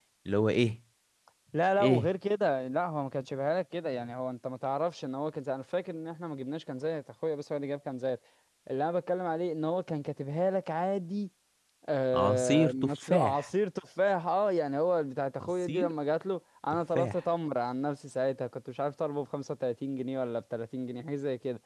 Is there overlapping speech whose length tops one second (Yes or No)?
Yes